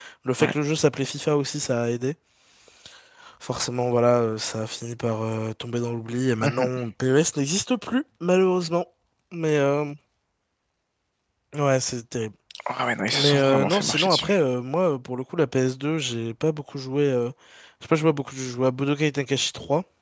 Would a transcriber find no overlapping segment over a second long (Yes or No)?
No